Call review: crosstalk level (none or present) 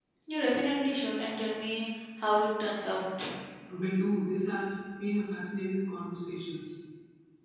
none